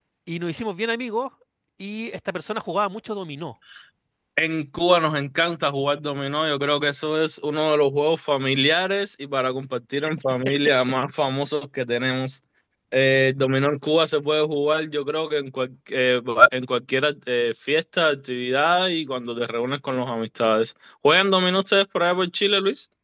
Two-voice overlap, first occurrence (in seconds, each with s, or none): none